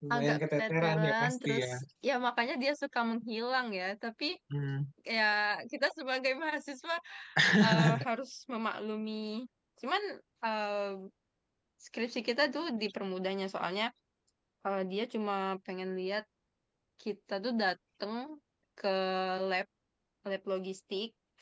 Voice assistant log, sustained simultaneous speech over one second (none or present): present